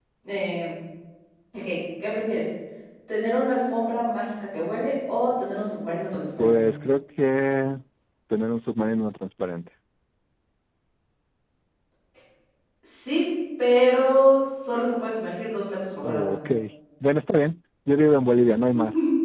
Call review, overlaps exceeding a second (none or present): none